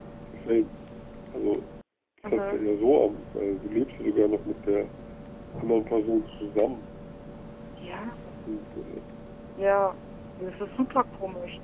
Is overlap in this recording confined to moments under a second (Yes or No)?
Yes